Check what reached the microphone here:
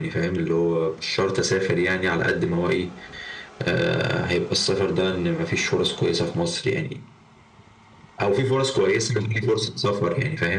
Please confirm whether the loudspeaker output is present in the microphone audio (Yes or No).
Yes